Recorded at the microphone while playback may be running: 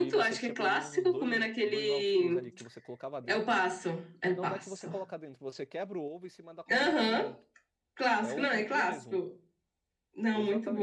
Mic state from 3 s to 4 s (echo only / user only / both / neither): both